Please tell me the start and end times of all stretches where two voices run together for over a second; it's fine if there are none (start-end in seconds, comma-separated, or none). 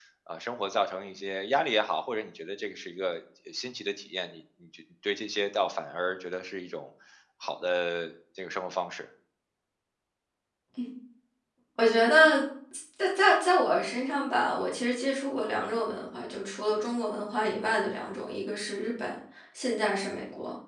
none